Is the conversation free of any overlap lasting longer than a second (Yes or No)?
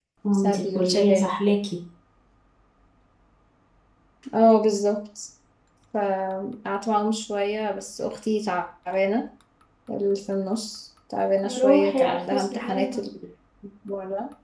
No